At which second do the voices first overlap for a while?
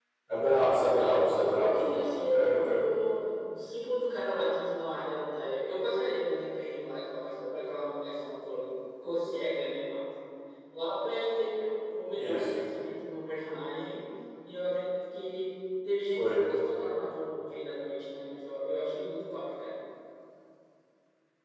1.0 s

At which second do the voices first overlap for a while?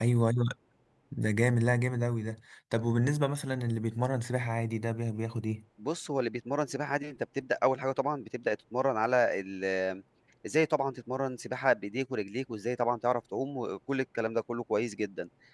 none

